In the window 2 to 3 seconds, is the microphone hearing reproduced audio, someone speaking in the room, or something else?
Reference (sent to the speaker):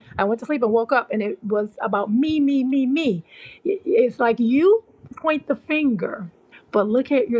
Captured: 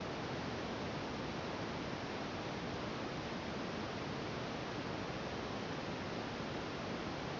neither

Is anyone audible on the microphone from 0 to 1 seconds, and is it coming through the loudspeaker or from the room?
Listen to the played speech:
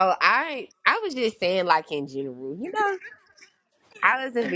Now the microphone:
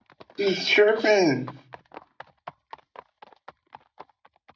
user only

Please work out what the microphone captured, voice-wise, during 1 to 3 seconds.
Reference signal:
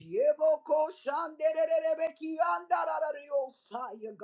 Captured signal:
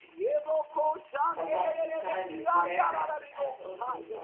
both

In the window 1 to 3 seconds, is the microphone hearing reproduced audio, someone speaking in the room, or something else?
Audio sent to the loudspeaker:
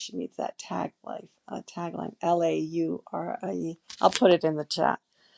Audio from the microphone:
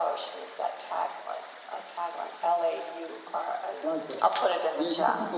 echo only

